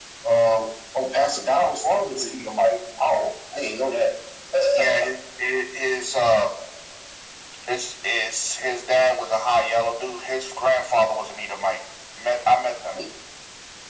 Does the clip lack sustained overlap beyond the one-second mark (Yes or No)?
Yes